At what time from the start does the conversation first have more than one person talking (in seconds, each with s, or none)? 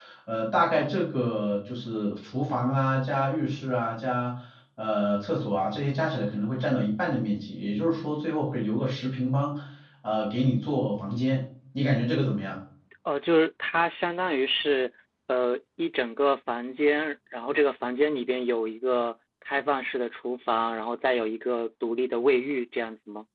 none